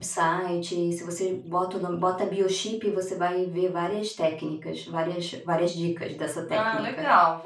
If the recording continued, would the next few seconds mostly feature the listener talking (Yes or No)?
Yes